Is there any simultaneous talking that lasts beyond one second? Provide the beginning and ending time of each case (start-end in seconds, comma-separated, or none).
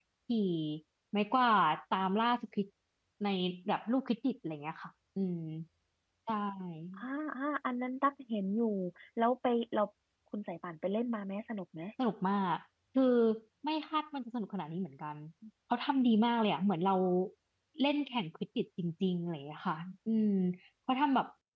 none